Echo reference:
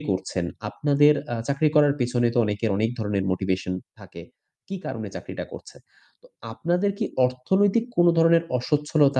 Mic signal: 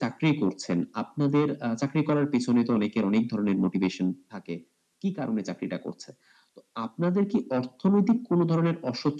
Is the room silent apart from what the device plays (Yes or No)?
Yes